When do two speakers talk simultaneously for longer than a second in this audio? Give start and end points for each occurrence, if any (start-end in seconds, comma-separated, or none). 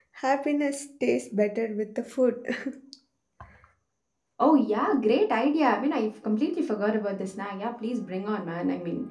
none